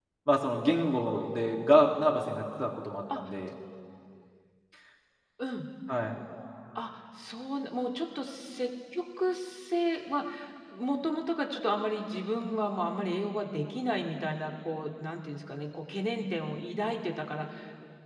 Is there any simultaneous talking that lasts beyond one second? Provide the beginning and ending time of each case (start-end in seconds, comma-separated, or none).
none